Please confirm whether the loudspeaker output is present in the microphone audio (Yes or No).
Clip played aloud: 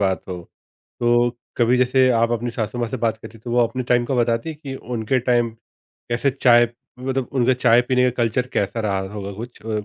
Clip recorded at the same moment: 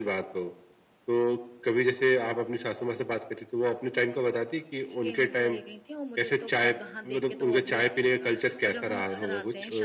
Yes